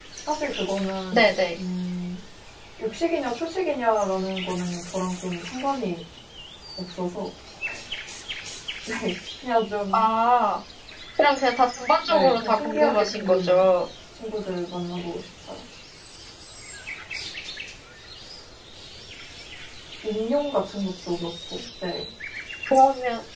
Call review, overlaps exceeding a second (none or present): present